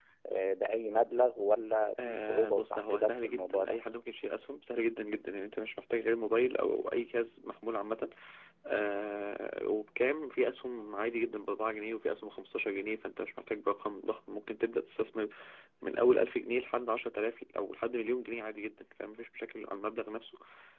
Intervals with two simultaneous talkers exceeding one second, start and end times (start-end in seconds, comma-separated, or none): 2.1-3.8